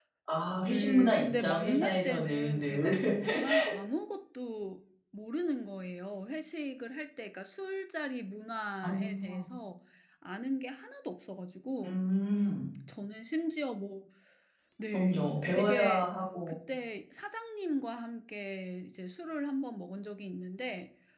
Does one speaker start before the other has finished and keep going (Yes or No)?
Yes